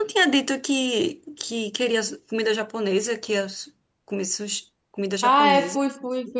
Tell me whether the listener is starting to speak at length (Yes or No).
Yes